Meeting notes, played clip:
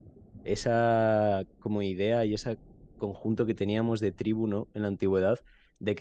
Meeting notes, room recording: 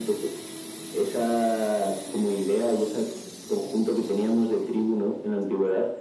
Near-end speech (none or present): none